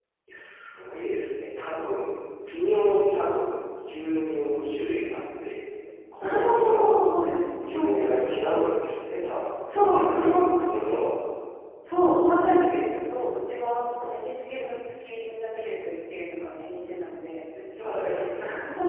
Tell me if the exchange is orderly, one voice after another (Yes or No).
No